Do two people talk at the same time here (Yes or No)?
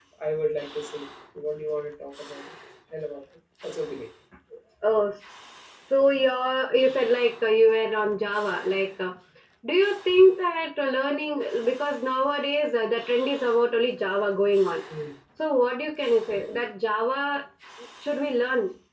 No